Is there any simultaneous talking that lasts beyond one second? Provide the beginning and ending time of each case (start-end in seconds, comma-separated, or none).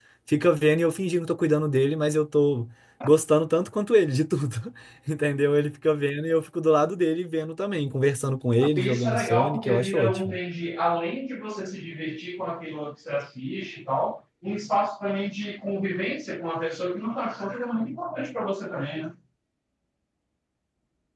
8.6-10.4